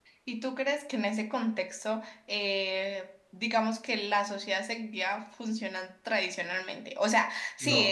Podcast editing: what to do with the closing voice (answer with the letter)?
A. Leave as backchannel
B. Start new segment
A